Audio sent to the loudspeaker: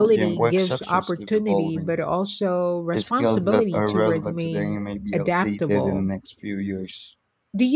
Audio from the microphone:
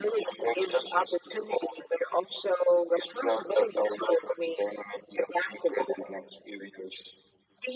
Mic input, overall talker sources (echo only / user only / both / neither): echo only